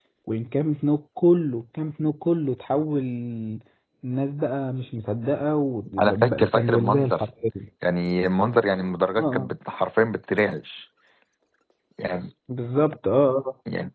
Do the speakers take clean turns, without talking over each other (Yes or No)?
No